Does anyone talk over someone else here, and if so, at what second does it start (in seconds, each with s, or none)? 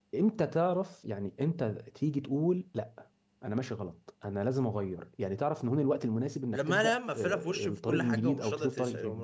6.5 s